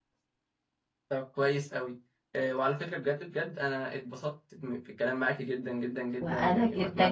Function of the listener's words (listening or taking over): taking over